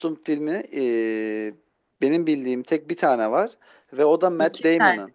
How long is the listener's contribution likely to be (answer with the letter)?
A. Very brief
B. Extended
A